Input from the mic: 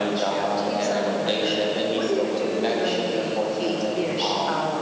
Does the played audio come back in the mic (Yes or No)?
Yes